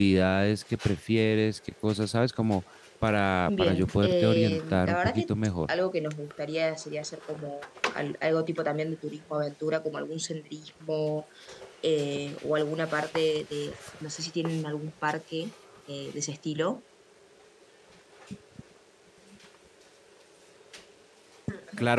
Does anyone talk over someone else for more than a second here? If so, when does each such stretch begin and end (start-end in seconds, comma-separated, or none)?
3.5-5.2